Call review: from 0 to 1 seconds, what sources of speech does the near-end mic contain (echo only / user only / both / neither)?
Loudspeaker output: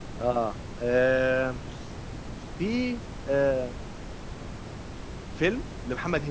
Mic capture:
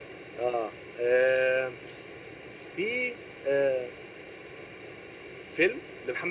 echo only